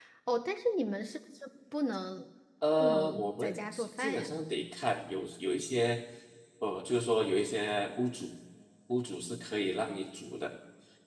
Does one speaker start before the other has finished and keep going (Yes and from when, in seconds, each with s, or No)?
Yes, from 2.8 s